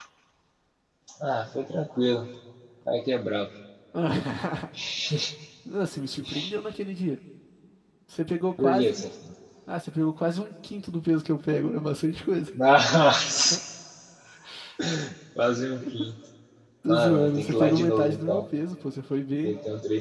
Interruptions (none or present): present